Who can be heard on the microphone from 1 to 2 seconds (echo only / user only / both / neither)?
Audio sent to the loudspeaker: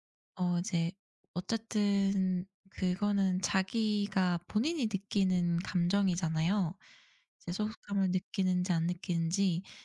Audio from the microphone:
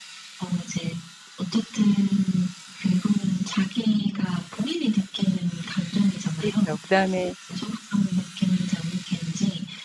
echo only